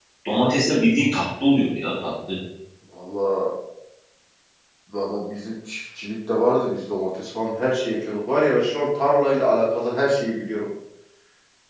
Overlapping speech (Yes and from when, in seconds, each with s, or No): No